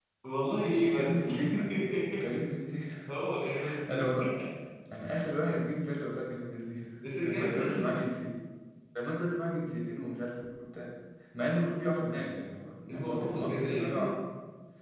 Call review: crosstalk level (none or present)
present